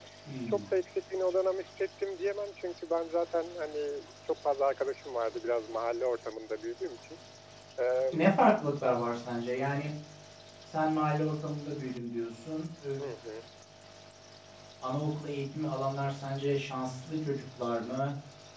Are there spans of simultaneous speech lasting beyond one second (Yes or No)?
No